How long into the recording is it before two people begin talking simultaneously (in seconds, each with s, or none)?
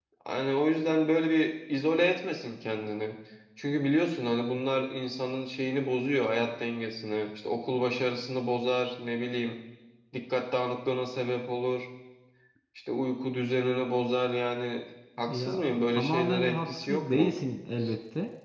15.3 s